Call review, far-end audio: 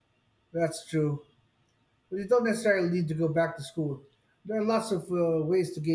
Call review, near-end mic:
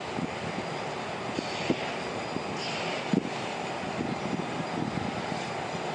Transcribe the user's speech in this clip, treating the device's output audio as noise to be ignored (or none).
none